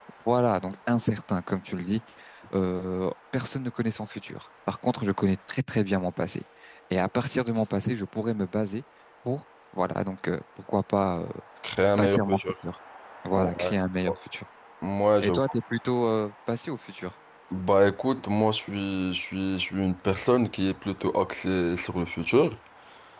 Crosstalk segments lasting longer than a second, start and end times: none

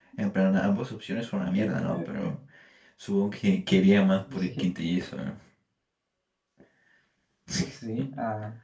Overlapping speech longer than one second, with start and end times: none

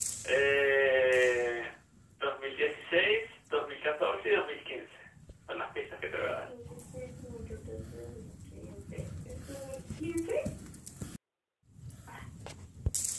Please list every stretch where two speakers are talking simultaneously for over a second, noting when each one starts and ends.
none

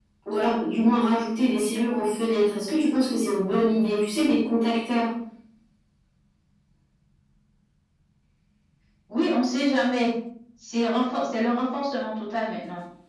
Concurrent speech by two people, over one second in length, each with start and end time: none

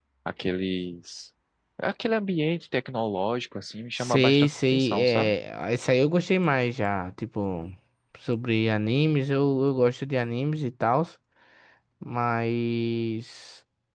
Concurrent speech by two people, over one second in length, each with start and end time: 4.0-5.3

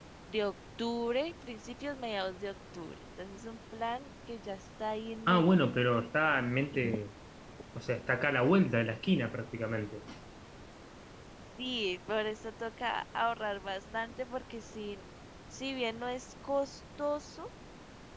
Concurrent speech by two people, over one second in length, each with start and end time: none

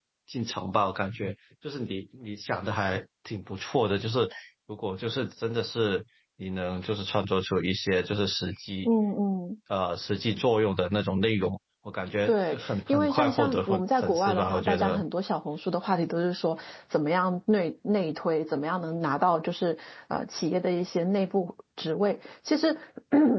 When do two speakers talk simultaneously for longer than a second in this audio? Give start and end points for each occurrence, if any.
12.3-15.0

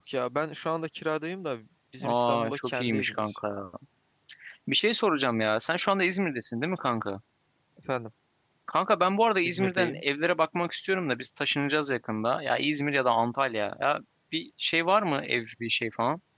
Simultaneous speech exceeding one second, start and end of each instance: 2.0-3.4

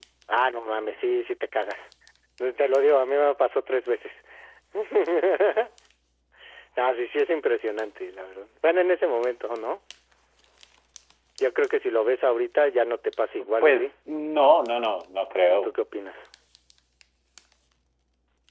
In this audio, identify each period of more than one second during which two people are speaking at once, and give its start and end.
none

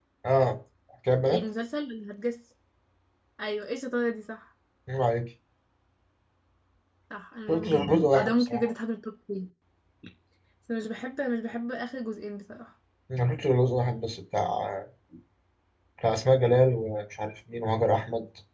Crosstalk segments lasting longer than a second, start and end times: 7.5-8.7

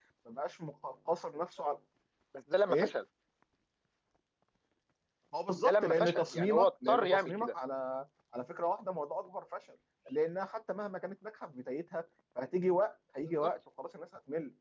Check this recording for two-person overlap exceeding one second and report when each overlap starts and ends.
5.6-7.5

